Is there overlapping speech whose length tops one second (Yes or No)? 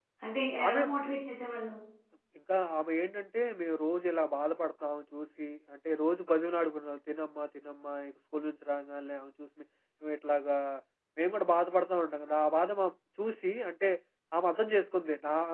No